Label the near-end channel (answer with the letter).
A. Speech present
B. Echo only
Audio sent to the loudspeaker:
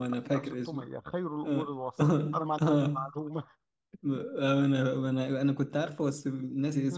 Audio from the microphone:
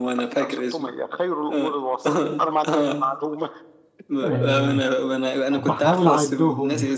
A